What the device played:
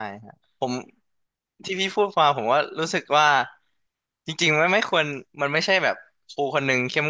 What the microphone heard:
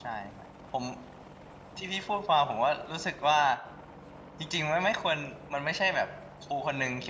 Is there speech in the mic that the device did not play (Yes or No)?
No